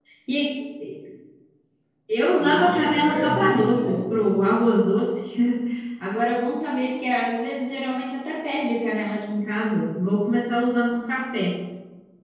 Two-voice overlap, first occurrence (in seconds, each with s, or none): 2.3 s